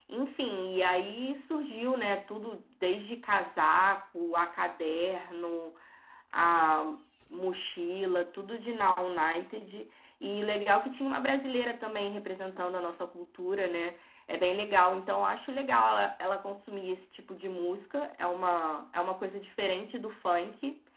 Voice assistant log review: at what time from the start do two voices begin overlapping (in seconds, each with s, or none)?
none